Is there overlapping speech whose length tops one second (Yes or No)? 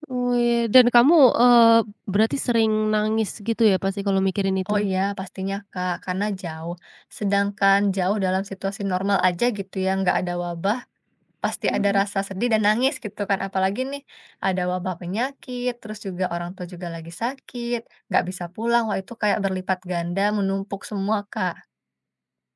No